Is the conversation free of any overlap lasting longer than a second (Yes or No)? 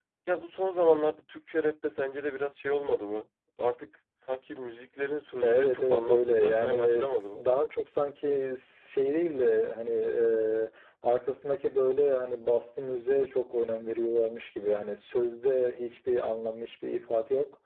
No